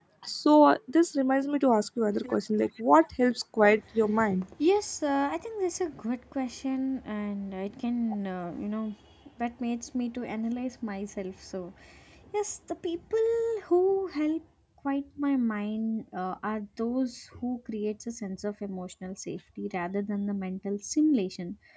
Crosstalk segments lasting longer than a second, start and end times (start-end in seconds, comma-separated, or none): none